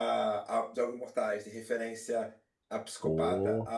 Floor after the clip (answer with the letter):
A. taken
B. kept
B